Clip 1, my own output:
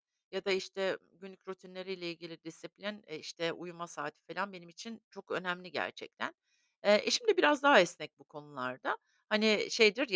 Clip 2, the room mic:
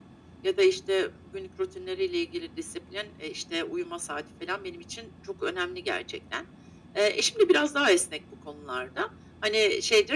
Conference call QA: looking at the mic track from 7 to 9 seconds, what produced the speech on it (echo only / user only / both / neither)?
echo only